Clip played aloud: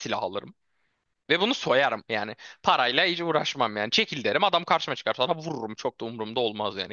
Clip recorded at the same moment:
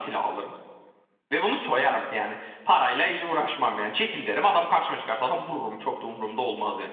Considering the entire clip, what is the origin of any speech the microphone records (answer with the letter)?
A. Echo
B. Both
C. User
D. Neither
A